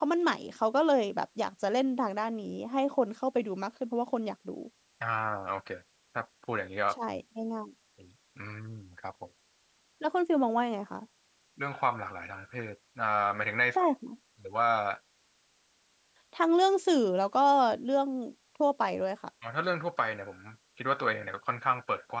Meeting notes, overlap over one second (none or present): none